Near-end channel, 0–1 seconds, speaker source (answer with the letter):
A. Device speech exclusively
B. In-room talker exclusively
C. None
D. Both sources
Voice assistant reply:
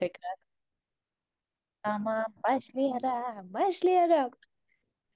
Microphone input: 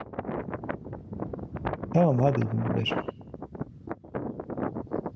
C